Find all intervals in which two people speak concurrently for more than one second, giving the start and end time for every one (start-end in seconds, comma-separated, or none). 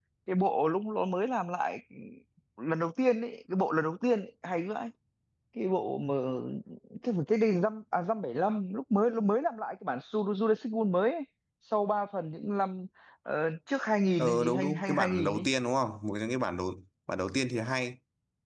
14.2-15.5